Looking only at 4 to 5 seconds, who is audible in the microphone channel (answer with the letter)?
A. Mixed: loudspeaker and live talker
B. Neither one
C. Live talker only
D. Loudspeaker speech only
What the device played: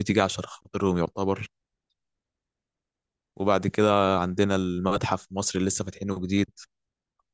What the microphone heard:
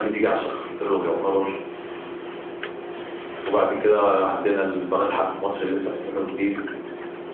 D